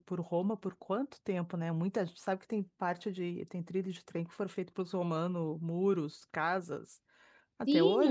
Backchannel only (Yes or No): No